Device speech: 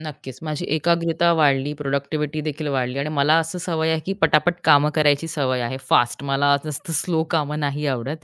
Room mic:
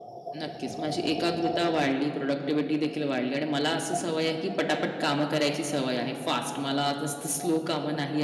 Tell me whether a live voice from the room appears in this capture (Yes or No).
No